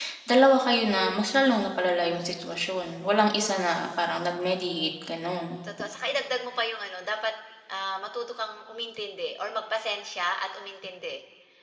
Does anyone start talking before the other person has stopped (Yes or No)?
No